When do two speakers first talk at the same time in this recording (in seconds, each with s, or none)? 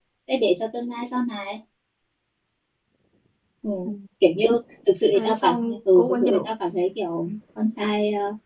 5.1 s